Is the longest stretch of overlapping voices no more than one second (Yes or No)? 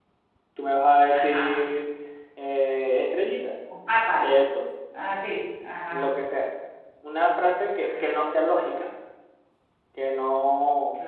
Yes